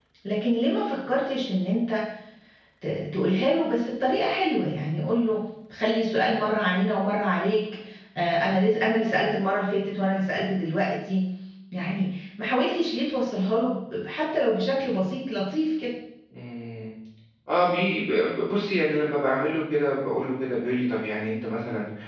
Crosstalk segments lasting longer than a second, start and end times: none

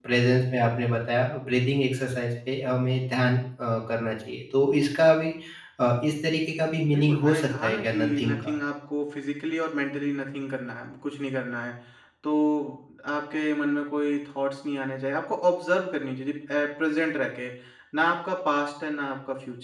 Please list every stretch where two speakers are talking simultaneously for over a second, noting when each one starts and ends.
6.9-8.5

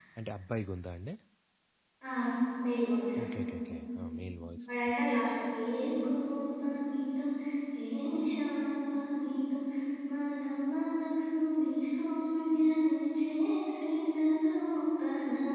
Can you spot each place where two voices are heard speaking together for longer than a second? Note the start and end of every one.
none

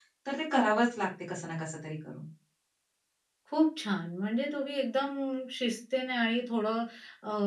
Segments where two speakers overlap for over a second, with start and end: none

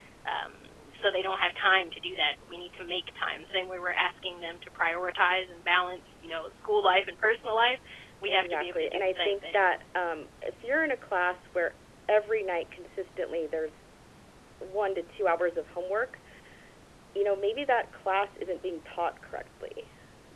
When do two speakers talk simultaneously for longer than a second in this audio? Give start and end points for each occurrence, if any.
8.3-9.7

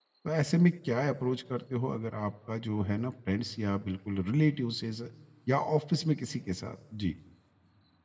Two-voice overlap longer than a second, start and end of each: none

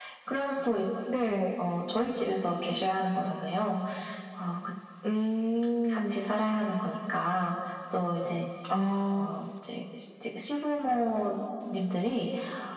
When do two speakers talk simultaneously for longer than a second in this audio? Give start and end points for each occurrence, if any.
none

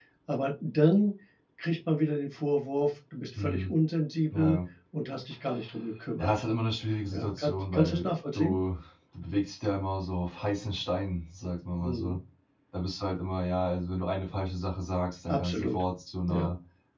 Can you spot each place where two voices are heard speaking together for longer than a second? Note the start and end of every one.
7.1-8.6

